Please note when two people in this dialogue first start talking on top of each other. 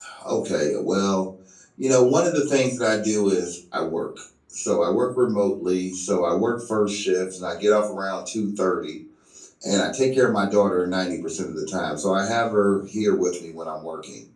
none

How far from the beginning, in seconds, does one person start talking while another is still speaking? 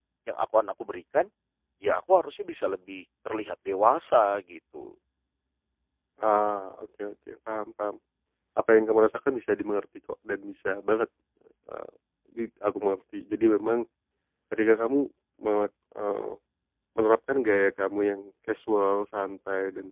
none

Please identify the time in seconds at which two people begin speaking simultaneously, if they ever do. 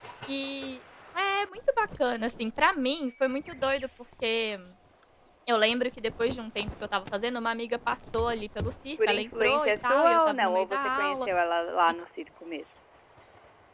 9.0 s

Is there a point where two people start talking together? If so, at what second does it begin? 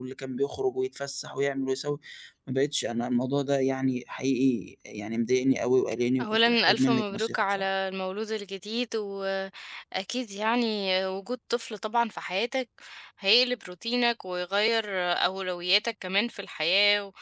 6.2 s

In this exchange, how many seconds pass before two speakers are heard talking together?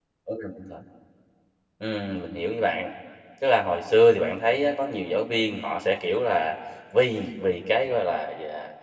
none

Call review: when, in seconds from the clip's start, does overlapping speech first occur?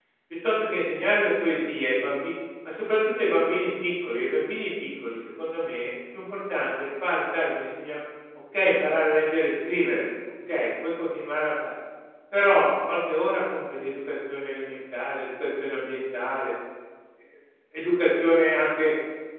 none

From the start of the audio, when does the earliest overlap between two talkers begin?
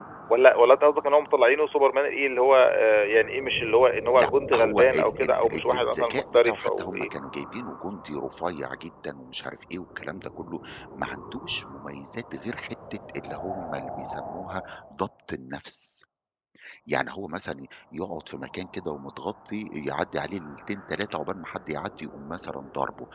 4.2 s

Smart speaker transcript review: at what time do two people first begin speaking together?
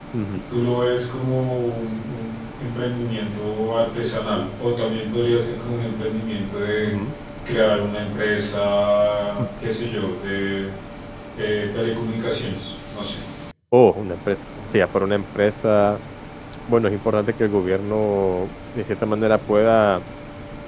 none

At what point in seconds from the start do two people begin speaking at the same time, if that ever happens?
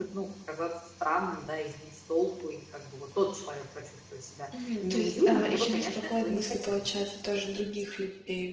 4.5 s

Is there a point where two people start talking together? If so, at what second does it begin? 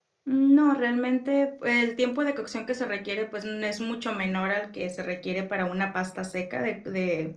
none

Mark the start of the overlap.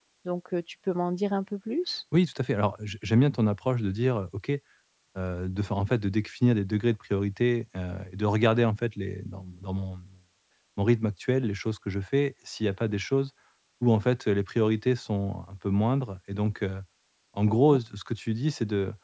none

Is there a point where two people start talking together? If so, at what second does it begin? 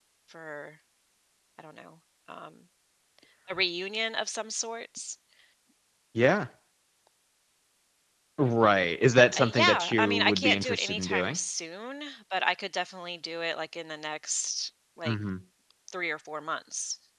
9.3 s

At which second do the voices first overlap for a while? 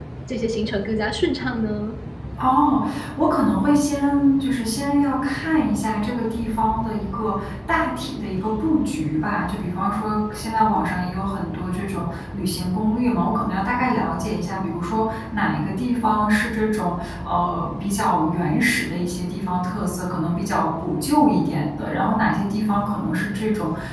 none

